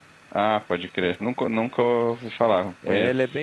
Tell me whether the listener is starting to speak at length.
Yes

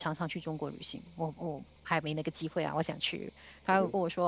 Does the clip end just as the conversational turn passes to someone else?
No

